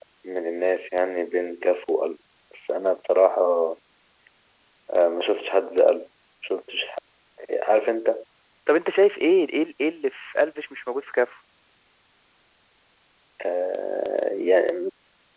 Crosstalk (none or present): none